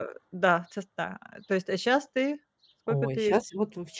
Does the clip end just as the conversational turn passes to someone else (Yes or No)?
Yes